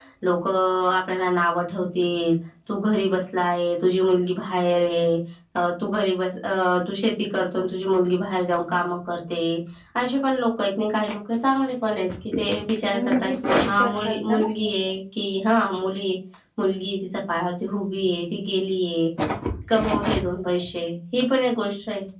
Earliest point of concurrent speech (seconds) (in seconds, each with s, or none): 12.9 s